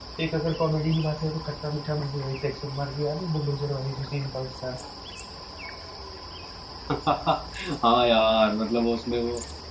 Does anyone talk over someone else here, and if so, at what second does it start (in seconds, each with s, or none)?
none